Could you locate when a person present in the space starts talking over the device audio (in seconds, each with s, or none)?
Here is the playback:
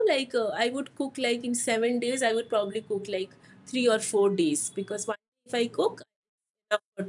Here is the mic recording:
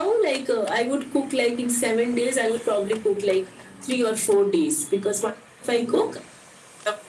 none